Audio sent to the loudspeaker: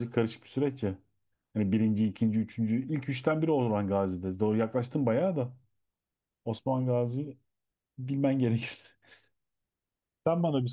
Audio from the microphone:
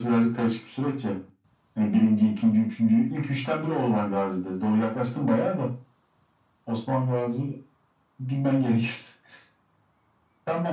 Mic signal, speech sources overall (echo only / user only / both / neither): echo only